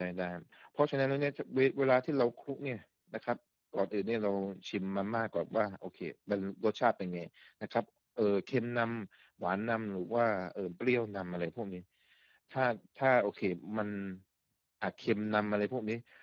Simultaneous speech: No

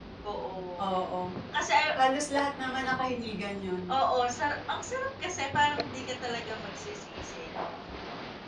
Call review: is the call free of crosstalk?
Yes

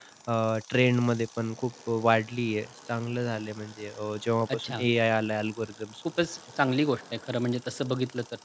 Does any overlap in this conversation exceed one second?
No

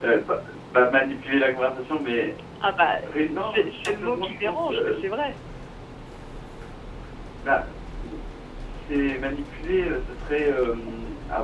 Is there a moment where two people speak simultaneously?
Yes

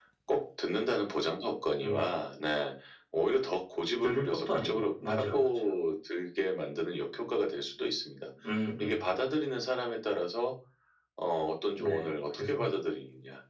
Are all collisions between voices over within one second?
No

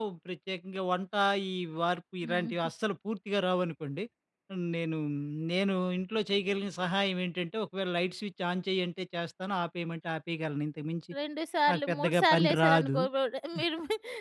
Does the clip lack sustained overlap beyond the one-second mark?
No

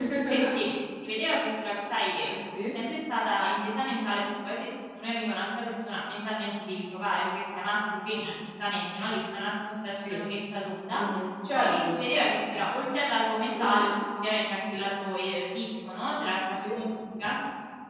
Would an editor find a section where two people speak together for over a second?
No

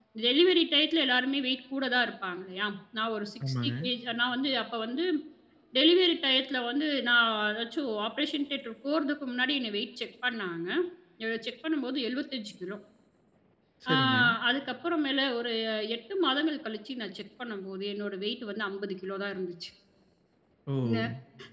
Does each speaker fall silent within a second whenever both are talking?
Yes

